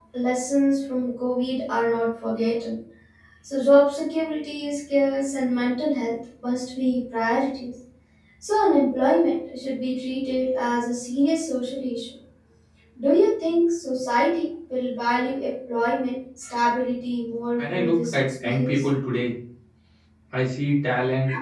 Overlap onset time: 17.6 s

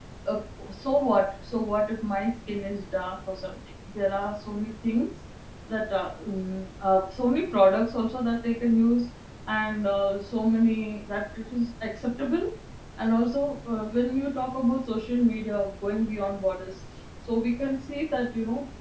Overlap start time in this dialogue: none

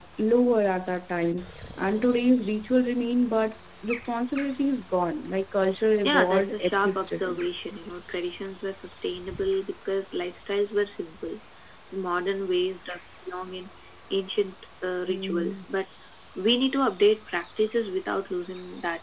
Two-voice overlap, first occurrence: 6.0 s

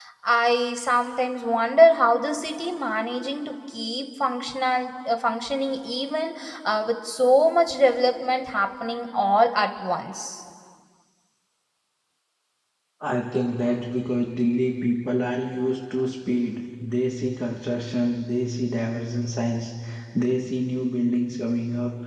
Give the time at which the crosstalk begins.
none

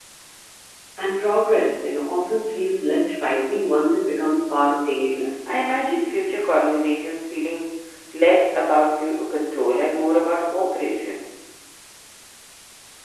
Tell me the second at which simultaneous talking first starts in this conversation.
none

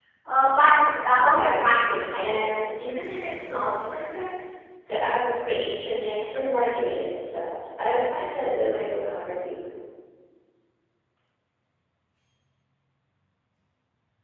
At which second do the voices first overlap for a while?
1.3 s

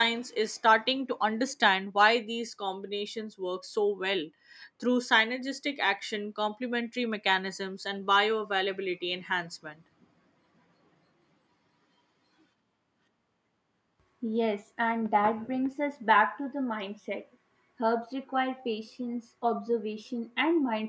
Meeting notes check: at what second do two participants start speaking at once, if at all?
none

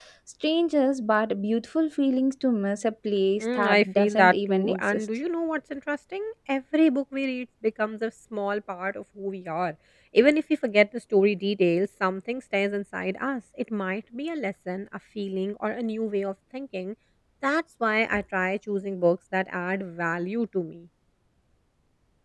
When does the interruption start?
3.4 s

